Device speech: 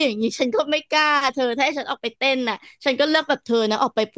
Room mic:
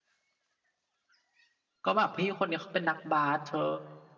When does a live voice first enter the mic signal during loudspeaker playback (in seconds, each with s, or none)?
1.8 s